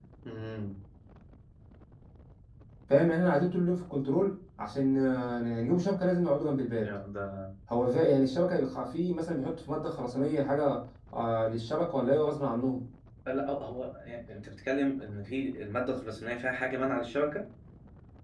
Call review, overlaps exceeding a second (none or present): none